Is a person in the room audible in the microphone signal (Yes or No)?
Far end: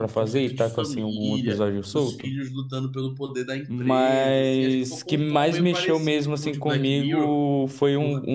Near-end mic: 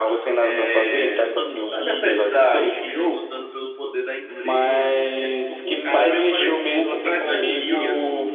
Yes